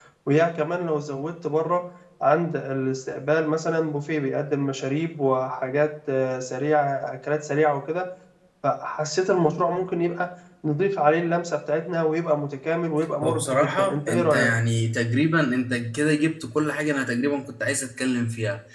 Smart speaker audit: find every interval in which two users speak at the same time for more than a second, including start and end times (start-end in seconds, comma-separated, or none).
13.2-14.5